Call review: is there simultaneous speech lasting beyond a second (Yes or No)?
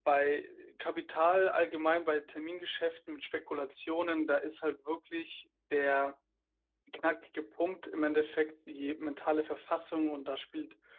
No